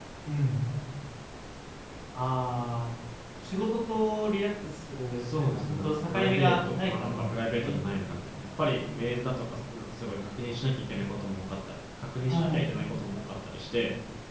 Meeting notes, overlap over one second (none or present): present